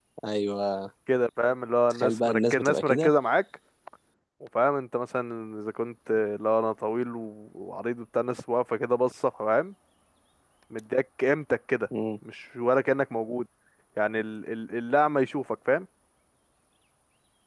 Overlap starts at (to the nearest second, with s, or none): 2 s